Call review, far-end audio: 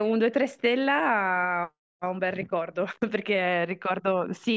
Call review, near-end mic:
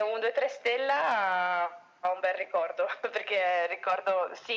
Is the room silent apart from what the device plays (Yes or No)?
Yes